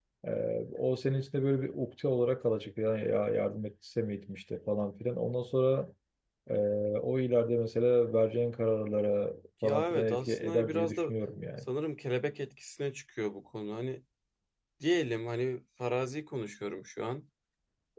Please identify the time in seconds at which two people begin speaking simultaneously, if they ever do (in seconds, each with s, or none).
9.6 s